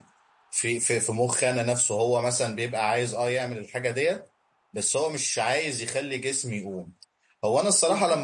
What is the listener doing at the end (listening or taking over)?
listening